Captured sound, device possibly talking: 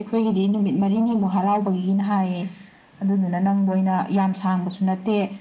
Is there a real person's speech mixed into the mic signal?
No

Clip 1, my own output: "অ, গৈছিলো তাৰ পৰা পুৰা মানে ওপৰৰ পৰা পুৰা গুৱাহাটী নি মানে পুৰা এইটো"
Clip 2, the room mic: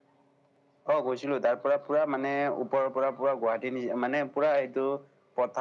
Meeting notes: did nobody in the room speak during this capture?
Yes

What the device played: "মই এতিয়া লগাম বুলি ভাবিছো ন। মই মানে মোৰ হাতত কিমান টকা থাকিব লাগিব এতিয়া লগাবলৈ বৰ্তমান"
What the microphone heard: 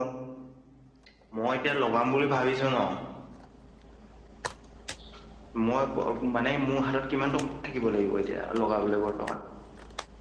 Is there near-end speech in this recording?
No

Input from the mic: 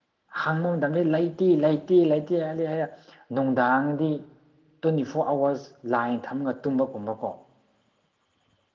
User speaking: Yes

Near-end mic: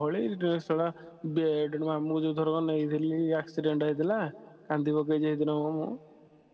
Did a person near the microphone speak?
Yes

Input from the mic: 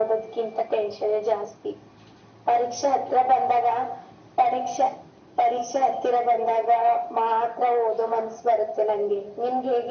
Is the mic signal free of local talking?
Yes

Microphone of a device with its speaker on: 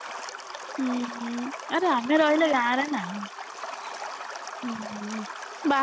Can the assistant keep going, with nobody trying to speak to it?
No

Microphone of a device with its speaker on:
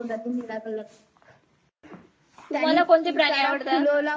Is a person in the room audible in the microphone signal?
Yes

